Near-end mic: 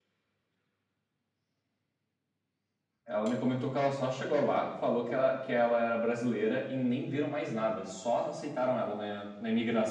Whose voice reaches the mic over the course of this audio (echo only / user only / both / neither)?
user only